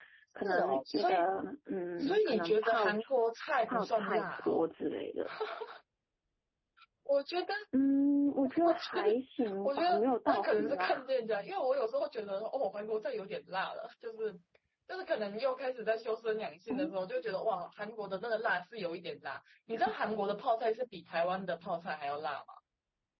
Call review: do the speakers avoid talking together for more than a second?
No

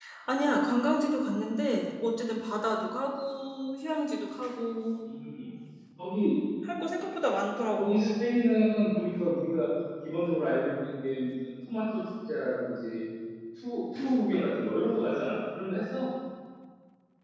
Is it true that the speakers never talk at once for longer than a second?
Yes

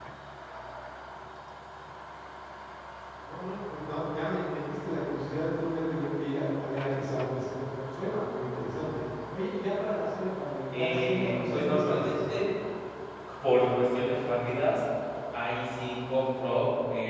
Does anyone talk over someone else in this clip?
Yes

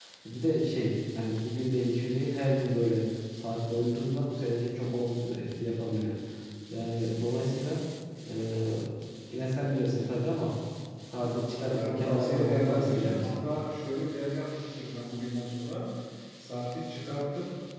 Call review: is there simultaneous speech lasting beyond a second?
Yes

